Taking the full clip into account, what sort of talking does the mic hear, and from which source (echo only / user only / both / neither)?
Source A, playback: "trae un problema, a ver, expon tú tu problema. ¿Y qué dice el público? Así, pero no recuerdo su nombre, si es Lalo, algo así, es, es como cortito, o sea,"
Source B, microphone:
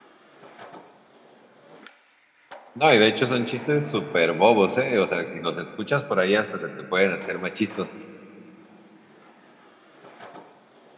user only